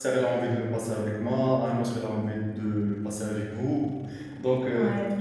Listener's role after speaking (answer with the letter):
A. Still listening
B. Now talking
A